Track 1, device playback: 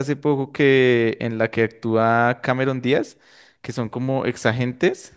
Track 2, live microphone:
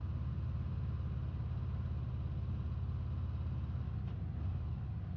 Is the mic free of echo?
Yes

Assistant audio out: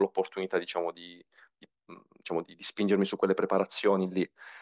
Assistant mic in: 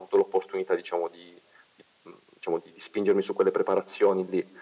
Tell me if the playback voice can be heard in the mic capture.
Yes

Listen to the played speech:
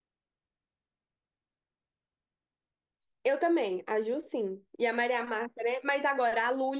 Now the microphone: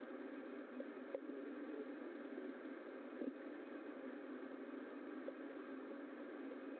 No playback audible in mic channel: Yes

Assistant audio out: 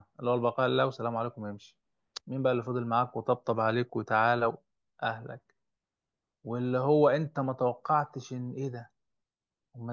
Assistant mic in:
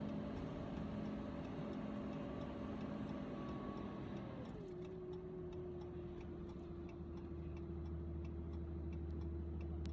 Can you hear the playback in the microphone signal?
No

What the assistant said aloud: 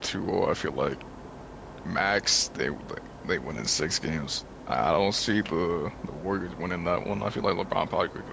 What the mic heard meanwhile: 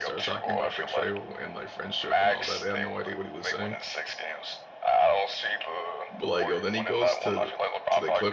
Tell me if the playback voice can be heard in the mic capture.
Yes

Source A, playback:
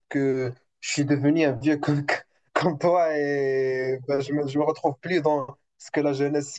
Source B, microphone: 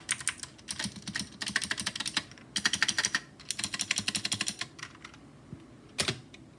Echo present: No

